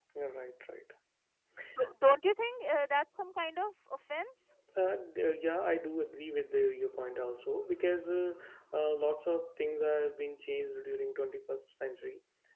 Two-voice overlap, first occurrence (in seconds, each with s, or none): none